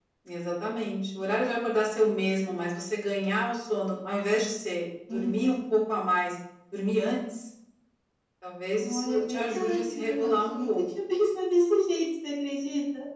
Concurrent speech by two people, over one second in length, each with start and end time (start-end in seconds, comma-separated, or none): 8.8-10.7